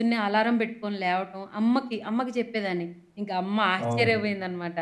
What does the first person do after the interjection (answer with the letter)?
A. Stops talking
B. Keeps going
B